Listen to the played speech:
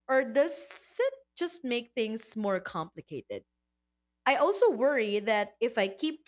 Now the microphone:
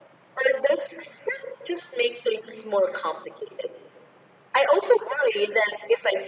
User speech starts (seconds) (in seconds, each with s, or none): none